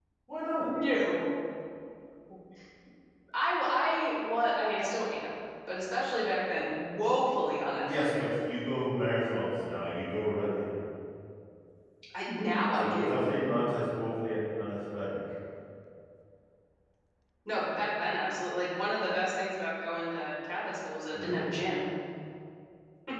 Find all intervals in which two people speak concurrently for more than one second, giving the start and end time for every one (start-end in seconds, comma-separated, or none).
none